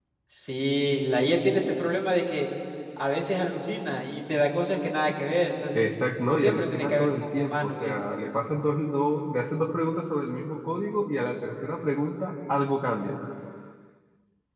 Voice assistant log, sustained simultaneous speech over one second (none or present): present